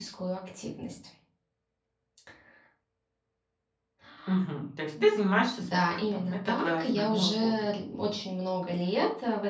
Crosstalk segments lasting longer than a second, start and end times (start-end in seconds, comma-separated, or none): 5.6-7.7